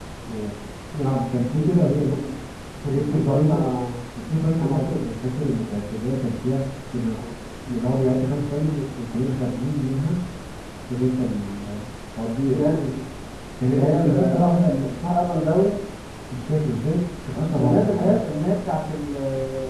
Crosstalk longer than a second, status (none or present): present